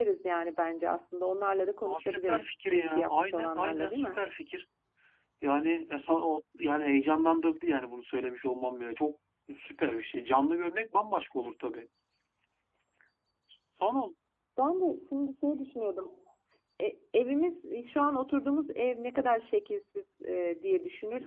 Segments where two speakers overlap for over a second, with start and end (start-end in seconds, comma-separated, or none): 1.8-4.2